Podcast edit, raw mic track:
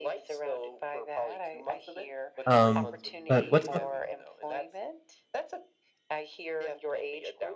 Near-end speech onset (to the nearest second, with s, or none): 2 s